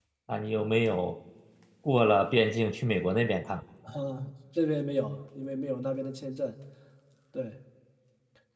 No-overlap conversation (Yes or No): Yes